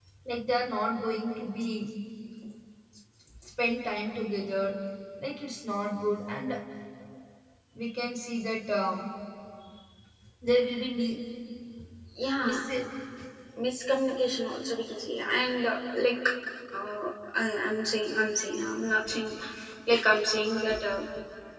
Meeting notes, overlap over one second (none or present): none